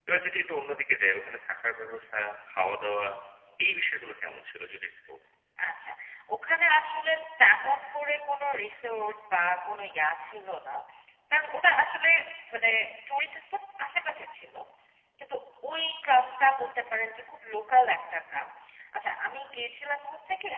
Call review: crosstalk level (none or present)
none